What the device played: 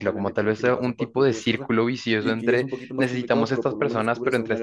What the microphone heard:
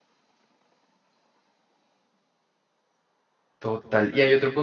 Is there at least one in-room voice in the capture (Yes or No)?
Yes